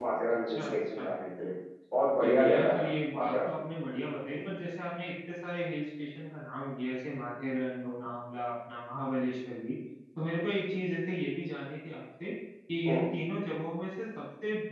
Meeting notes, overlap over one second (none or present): present